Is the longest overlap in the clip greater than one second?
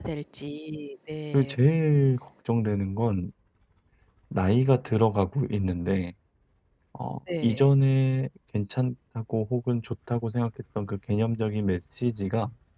No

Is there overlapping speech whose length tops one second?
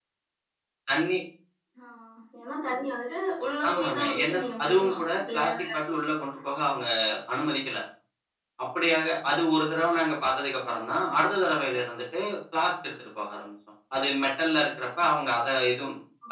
Yes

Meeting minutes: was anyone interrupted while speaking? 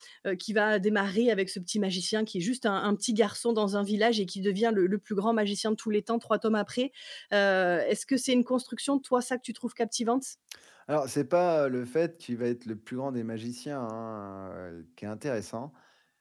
No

